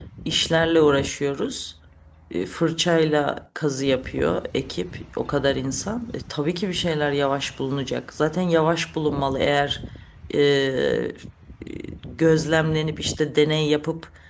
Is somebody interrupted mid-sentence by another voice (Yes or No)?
No